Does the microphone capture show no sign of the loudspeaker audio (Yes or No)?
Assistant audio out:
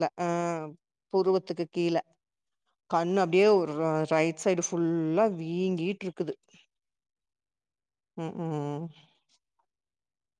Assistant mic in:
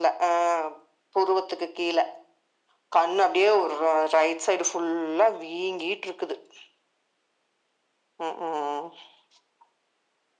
No